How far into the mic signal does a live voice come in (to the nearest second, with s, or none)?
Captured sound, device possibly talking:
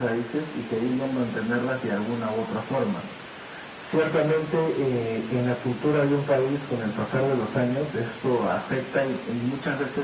none